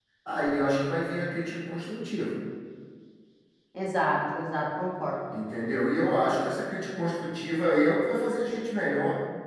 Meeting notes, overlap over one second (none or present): none